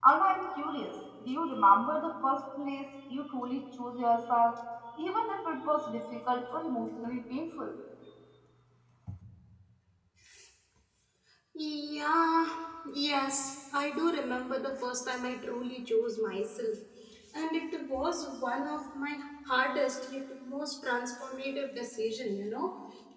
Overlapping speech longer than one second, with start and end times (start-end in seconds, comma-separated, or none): none